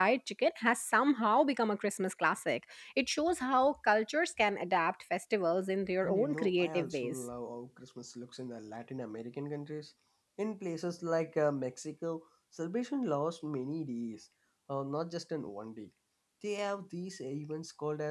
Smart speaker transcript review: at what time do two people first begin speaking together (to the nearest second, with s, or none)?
6 s